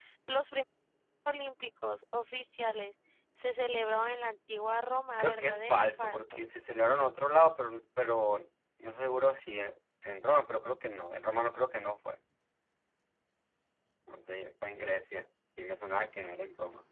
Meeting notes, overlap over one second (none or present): present